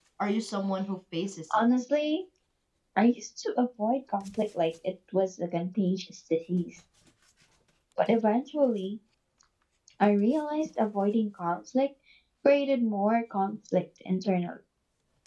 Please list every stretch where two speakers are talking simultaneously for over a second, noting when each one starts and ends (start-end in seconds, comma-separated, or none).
none